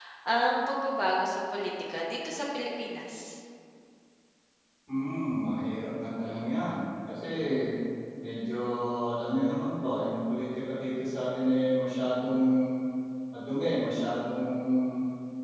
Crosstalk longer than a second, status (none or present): none